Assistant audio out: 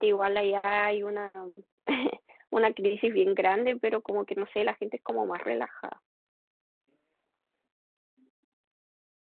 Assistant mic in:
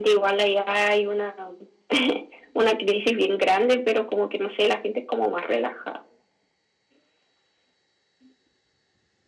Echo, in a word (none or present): present